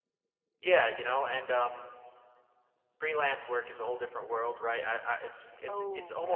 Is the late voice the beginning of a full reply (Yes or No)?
No